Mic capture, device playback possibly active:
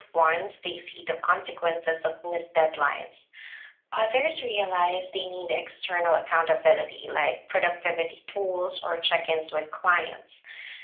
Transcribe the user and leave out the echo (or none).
none